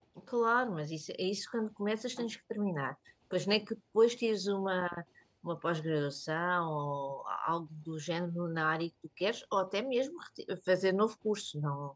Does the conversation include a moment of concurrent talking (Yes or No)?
No